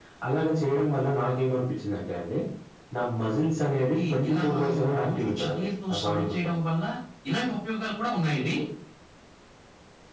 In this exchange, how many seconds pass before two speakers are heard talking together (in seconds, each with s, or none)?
3.7 s